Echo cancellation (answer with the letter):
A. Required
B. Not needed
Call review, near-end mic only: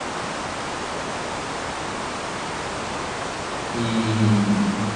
B